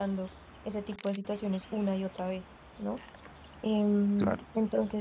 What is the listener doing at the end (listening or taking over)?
listening